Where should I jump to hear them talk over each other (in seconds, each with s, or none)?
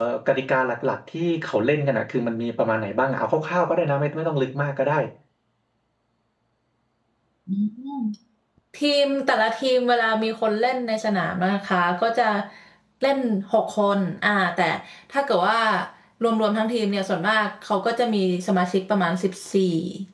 none